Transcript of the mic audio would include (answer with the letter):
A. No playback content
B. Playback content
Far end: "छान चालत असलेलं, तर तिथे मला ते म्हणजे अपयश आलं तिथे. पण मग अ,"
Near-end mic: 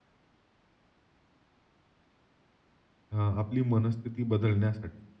A